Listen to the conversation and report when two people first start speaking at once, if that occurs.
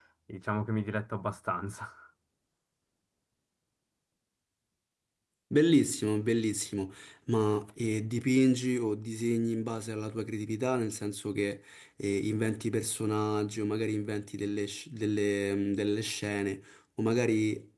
none

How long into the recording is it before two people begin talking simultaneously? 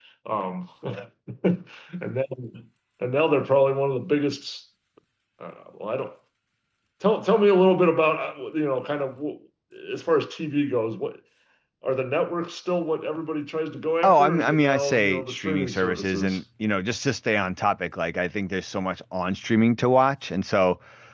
14.0 s

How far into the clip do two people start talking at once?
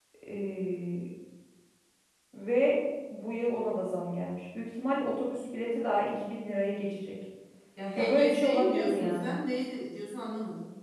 8.0 s

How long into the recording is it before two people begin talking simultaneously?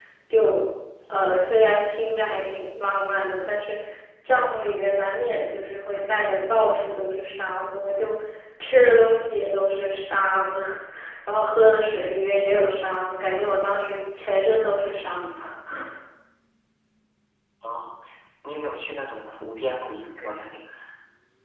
none

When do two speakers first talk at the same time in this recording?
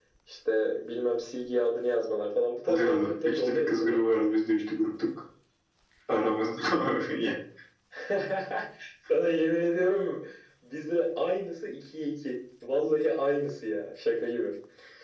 2.7 s

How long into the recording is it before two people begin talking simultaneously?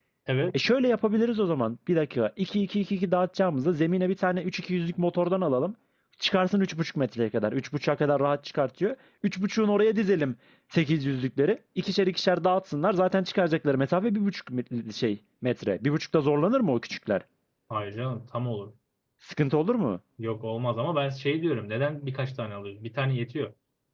none

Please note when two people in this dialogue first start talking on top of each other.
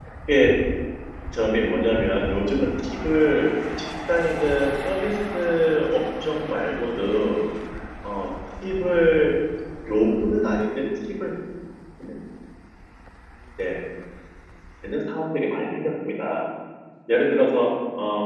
none

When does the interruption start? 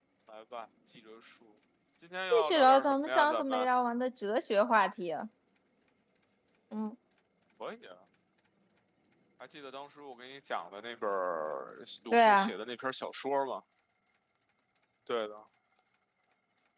2.3 s

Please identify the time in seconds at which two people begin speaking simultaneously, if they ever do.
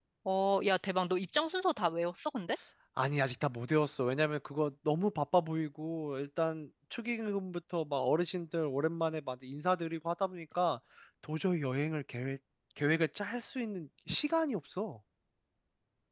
none

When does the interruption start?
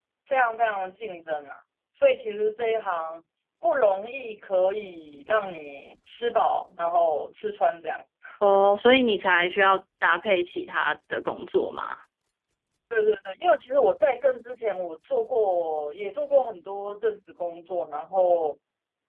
none

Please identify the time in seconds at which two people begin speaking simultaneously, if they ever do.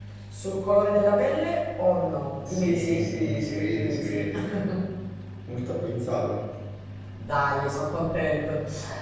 2.5 s

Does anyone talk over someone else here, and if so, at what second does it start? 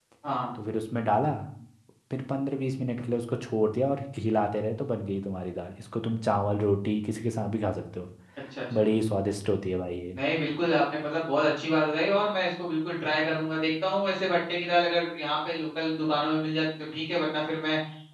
none

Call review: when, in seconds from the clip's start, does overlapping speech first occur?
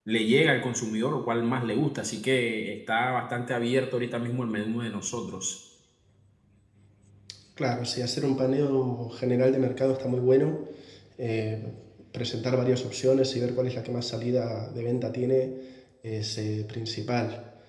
none

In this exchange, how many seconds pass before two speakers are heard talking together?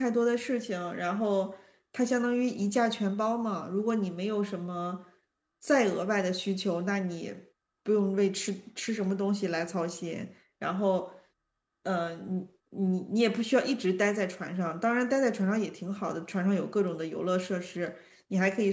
none

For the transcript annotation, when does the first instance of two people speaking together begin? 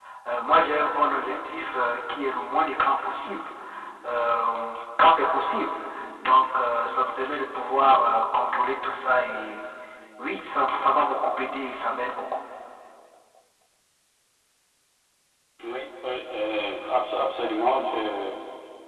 none

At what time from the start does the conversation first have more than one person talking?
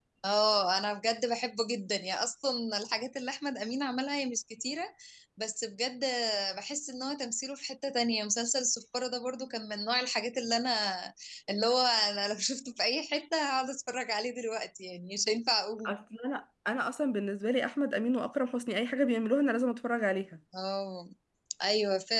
none

